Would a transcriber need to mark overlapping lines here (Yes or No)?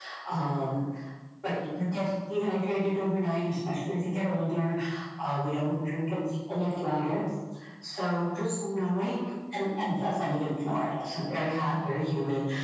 No